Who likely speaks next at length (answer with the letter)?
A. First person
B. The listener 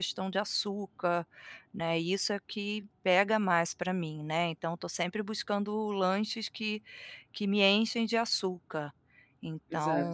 A